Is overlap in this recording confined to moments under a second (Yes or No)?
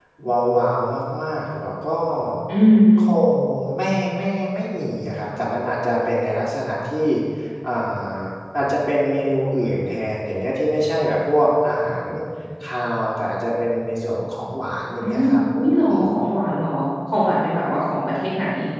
Yes